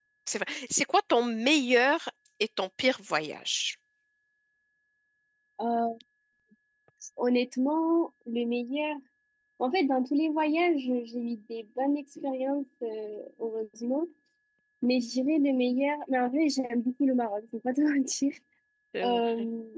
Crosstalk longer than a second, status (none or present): none